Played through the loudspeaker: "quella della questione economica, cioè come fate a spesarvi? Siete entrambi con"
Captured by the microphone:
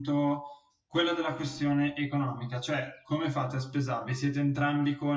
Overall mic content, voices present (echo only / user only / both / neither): echo only